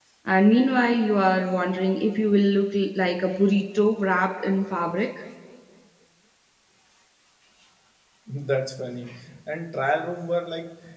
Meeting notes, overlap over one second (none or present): none